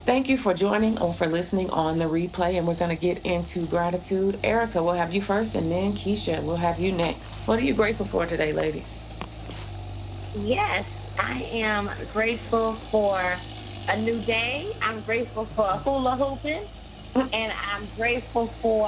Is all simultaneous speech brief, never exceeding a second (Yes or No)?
Yes